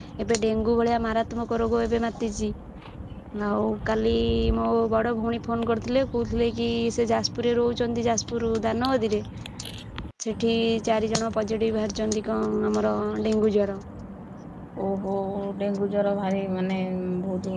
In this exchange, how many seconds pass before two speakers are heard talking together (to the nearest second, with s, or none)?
none